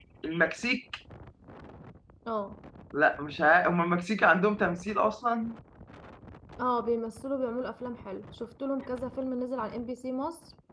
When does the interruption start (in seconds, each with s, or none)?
none